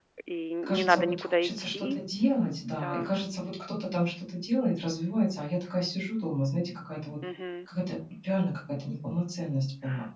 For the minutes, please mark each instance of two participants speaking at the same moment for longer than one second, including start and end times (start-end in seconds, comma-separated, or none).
0.6-2.0